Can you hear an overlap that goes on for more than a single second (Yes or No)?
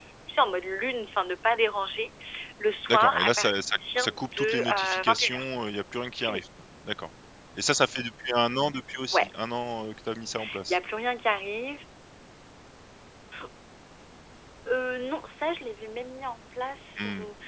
Yes